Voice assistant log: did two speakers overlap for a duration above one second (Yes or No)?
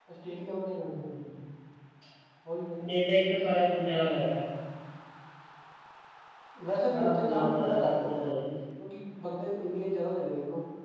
Yes